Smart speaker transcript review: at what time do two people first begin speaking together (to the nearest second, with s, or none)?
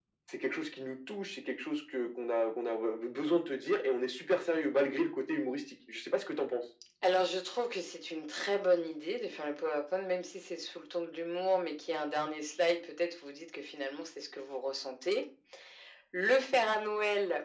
none